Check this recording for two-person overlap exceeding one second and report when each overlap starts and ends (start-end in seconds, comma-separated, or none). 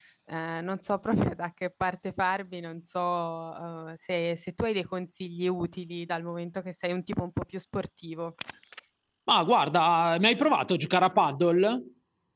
none